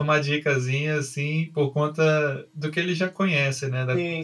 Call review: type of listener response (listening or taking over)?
taking over